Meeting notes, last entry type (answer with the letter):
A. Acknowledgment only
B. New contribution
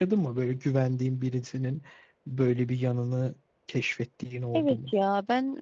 B